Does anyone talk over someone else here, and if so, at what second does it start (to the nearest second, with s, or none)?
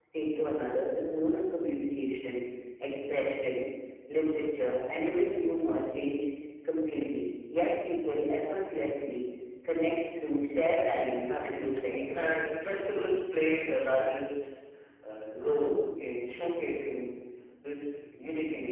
11 s